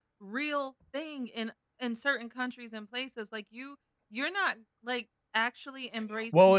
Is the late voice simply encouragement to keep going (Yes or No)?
No